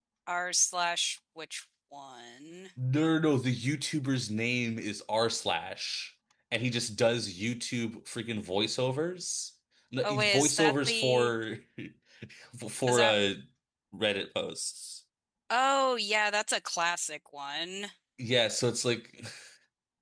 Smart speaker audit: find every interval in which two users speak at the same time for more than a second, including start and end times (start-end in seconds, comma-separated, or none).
10.0-11.3